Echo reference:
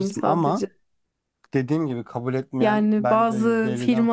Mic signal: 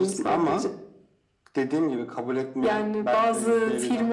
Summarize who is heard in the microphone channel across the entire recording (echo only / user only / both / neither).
echo only